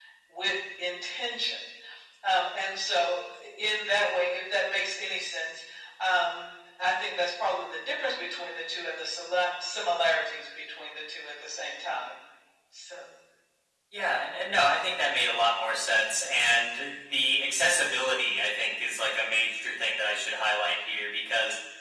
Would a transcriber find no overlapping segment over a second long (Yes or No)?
Yes